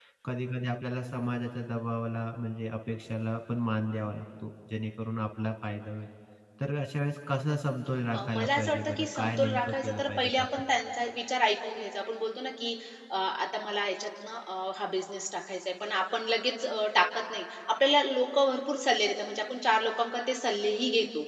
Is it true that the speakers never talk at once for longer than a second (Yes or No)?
No